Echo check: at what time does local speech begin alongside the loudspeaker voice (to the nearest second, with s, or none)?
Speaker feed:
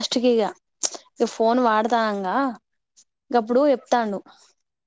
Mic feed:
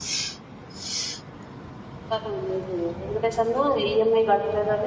2 s